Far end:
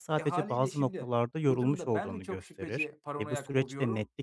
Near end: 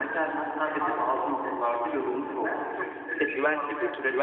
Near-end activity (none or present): present